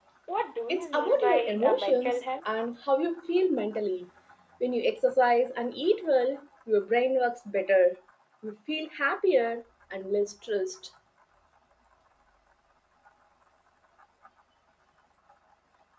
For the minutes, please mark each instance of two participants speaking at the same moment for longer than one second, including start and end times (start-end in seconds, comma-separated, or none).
0.7-2.2